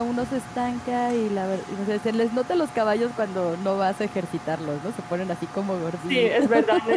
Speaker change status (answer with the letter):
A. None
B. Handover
B